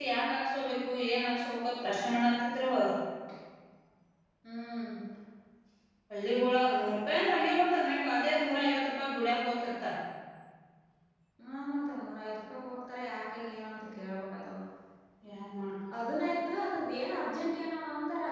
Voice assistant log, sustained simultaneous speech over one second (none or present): none